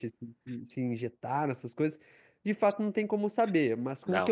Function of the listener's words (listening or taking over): listening